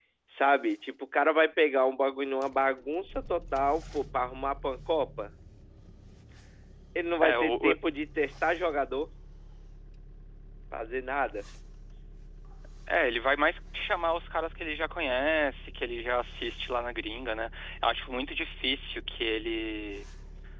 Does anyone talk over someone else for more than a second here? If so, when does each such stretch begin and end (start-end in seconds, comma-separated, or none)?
none